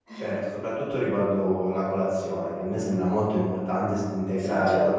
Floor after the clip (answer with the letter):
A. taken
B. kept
B